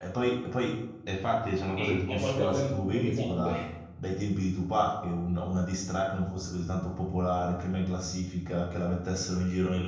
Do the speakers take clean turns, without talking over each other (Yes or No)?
No